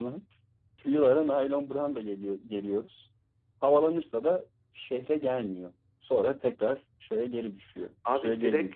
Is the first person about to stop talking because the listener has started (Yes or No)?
Yes